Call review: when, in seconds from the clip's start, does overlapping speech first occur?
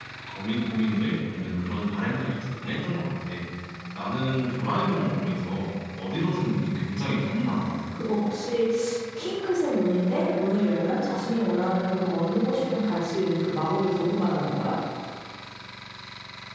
none

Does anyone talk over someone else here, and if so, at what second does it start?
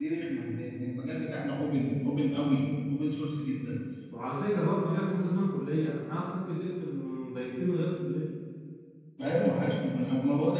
none

